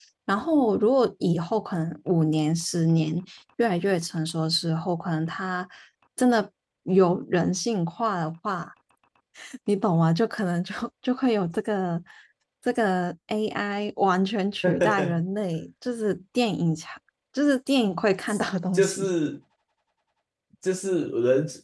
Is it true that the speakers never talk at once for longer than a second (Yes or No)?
Yes